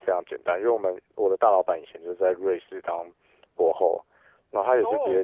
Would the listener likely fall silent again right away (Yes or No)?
Yes